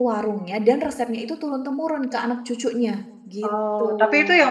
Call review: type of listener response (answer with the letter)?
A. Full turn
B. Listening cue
A